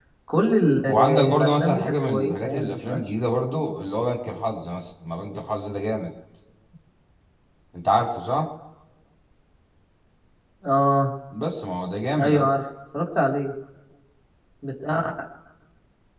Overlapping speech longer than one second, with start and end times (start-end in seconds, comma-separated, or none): 0.9-3.0